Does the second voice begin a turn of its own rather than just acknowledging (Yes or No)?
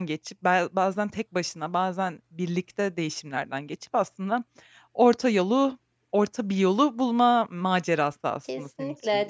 Yes